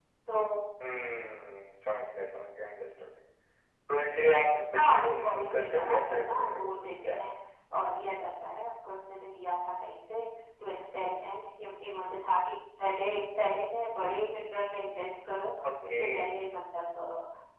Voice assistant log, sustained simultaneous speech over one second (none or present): present